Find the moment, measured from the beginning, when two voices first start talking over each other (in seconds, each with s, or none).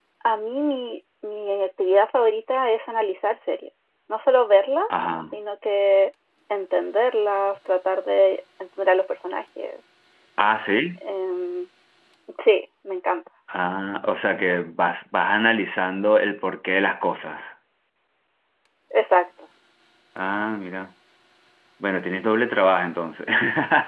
none